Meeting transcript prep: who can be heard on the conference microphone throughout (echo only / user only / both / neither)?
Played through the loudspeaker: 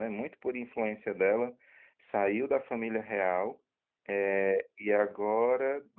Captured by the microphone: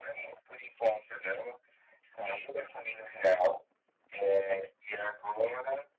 echo only